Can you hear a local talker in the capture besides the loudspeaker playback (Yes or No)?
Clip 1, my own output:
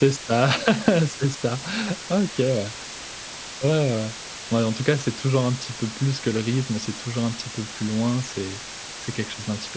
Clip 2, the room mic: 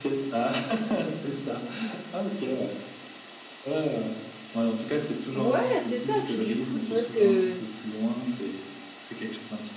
Yes